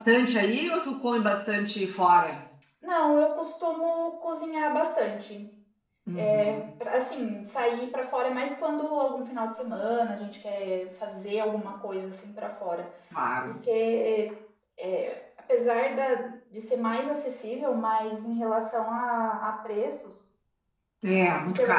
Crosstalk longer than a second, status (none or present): none